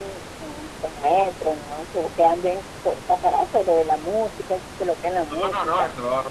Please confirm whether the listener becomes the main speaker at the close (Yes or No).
Yes